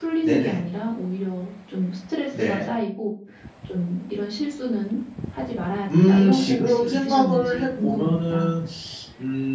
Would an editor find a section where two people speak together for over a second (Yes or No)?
Yes